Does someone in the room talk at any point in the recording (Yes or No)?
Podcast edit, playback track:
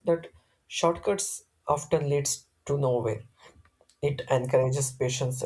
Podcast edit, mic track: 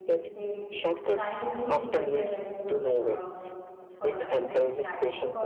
Yes